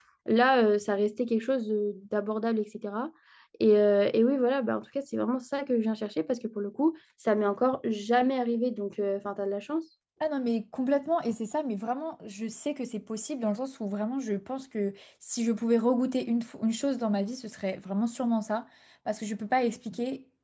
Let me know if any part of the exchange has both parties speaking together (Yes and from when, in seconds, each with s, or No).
No